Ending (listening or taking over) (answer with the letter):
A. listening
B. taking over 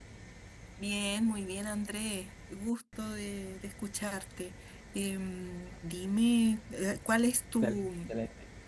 B